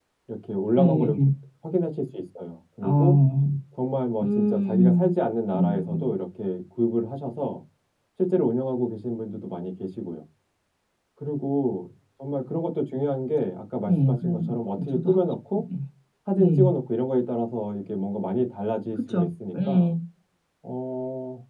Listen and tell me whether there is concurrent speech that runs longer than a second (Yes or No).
Yes